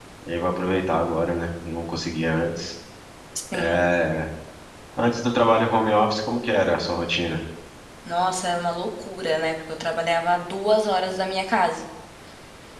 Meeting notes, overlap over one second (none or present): none